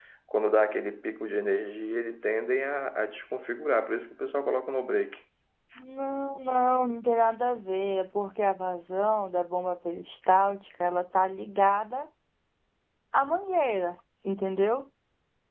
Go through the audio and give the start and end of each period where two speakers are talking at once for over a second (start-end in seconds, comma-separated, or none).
none